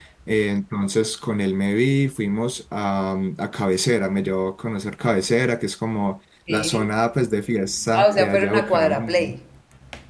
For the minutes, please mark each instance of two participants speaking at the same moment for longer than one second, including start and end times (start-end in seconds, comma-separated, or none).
7.9-9.3